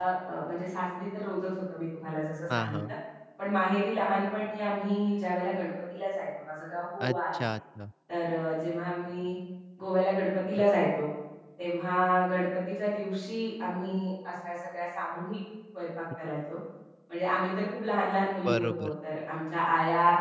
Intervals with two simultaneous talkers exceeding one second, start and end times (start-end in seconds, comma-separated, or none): none